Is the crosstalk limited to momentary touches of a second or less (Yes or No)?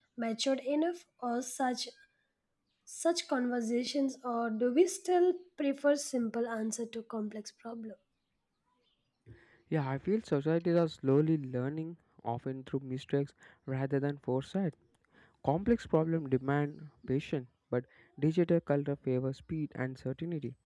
Yes